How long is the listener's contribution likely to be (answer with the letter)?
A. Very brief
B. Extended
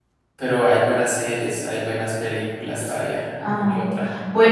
B